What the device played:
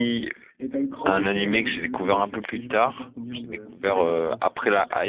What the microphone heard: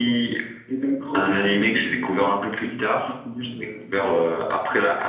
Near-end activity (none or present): none